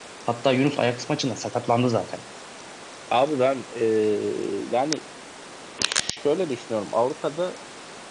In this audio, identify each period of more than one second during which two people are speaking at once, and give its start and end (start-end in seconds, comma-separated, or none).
none